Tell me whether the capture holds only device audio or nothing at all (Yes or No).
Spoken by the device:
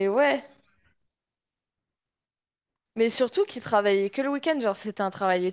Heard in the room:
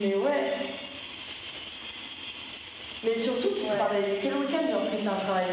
No